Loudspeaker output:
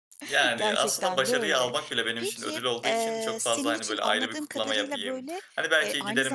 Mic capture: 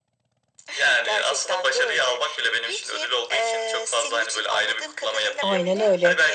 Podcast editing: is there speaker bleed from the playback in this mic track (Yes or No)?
Yes